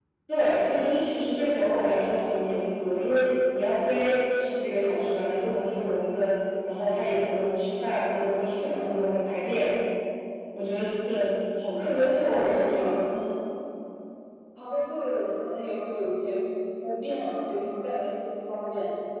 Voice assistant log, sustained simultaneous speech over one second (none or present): present